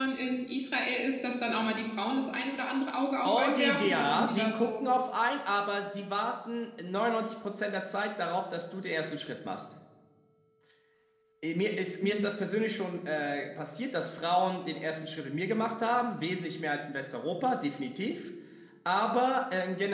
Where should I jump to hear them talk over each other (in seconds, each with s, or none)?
3.2 s